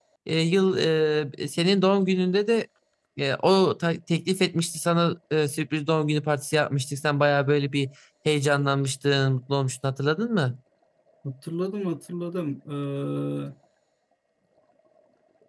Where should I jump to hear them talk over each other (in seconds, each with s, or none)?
none